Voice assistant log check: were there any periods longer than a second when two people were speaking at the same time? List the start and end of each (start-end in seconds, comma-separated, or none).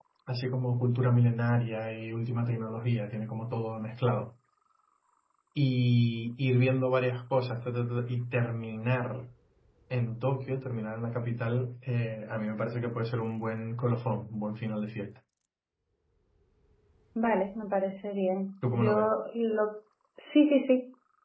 none